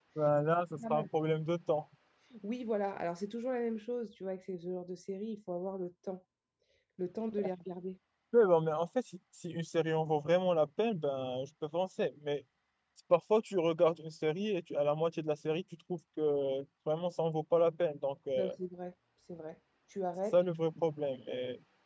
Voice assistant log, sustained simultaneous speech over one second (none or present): none